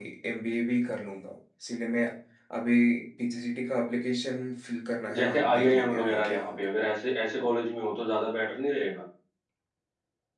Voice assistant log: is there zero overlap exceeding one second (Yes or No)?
No